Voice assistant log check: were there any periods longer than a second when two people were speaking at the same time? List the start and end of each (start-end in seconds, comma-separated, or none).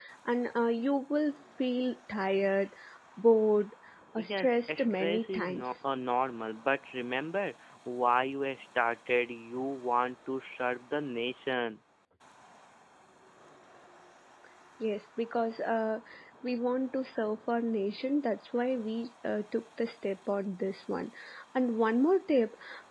4.2-5.7